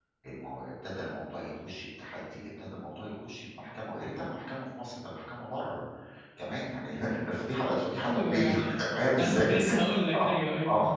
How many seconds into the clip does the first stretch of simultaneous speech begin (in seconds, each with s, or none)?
8.0 s